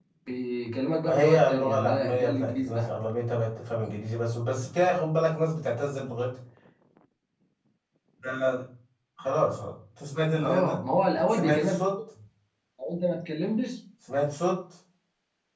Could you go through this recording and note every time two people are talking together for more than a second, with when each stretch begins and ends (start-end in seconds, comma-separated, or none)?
1.1-2.9